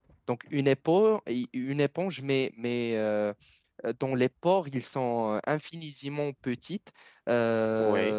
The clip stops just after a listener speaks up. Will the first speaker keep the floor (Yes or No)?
Yes